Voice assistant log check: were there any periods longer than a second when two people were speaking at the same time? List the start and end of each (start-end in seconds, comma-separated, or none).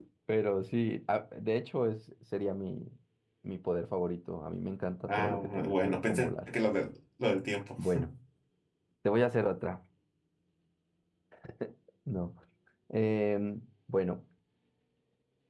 5.1-6.5